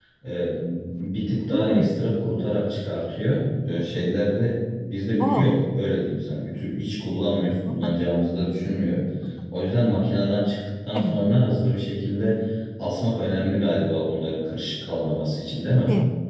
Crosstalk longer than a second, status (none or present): none